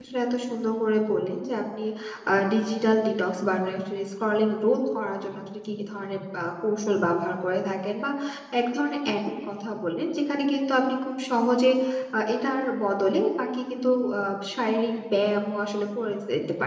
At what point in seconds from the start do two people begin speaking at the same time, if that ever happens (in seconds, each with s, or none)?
none